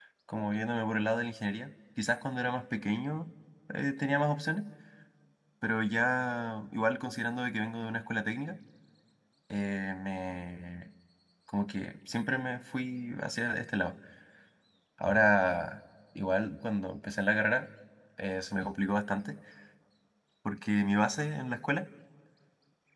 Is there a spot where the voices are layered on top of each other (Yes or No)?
No